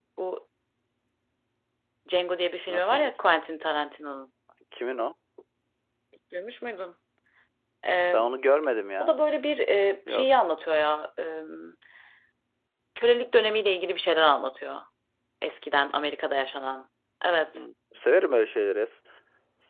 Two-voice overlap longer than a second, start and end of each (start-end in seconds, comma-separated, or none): none